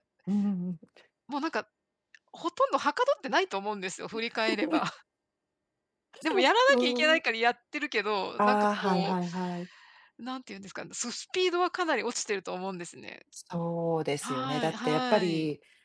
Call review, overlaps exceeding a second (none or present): present